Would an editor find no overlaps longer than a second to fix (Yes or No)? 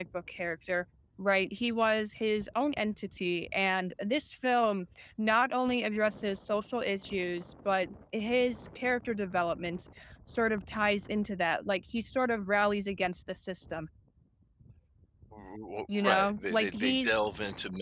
No